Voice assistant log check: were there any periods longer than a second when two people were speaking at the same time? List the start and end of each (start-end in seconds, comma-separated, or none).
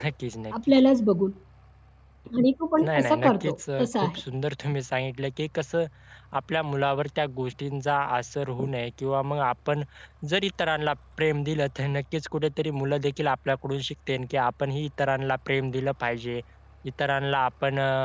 2.8-4.2